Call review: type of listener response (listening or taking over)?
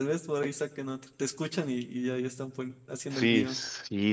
taking over